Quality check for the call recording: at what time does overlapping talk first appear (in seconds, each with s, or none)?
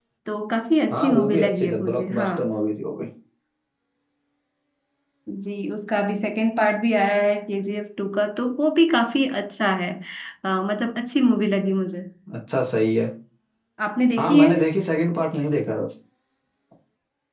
0.9 s